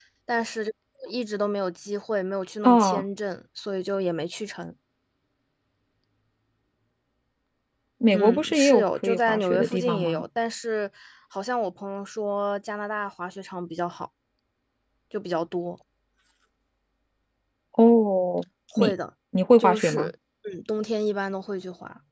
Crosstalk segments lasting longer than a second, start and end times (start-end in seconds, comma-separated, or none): 8.1-10.2